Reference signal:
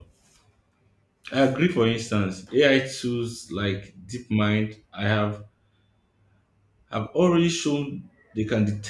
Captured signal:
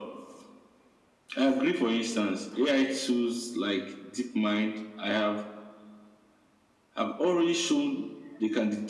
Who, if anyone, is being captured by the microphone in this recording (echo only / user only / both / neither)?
echo only